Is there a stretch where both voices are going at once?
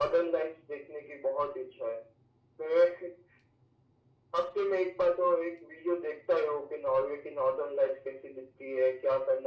No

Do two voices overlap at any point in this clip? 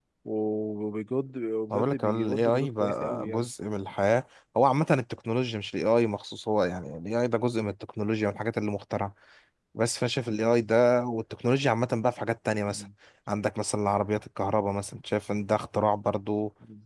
Yes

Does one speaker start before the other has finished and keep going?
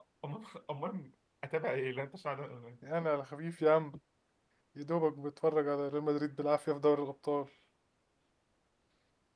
No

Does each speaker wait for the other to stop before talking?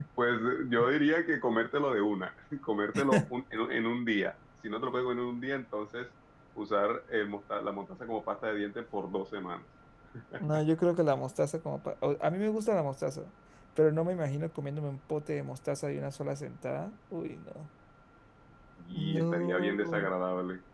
No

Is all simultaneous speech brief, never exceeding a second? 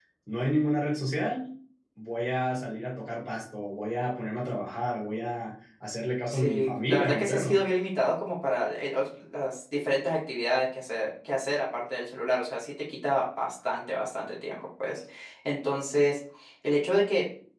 No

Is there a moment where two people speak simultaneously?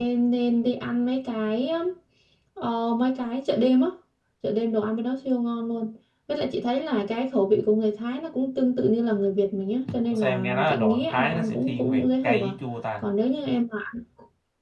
Yes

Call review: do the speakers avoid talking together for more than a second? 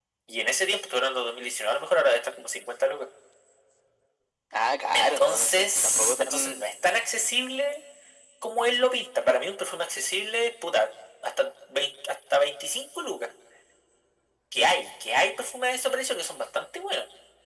No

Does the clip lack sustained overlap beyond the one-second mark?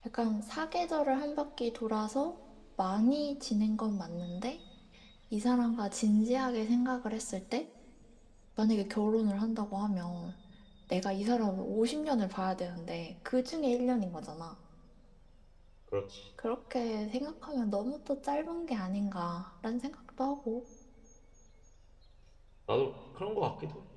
Yes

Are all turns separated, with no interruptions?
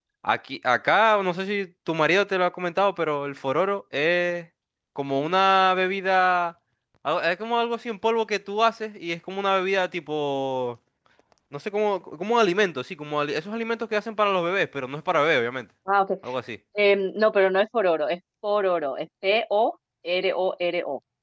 Yes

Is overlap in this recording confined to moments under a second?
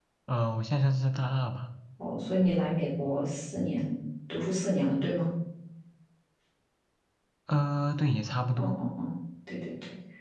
Yes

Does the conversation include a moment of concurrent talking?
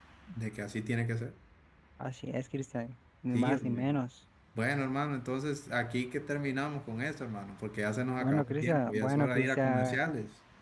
Yes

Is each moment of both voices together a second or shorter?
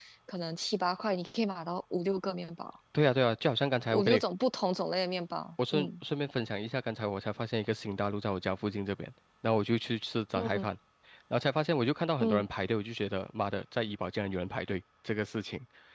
Yes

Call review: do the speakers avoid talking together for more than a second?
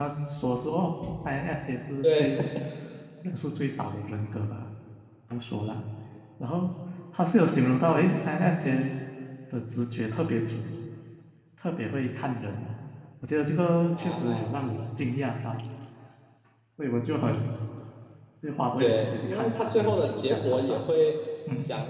No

